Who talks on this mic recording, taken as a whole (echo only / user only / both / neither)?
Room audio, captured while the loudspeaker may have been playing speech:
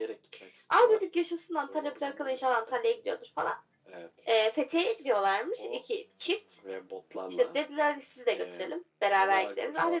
echo only